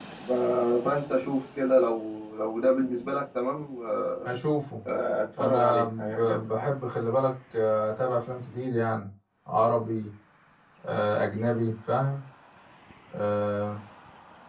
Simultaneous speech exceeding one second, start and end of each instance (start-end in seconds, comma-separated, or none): 5.4-6.7